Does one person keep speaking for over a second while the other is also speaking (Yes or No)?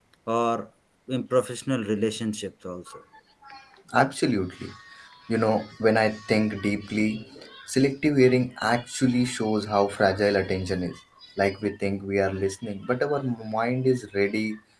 No